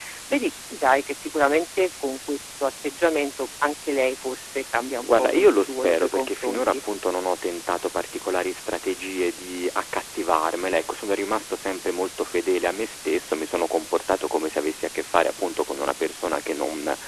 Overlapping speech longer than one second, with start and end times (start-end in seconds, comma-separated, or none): 5.0-6.7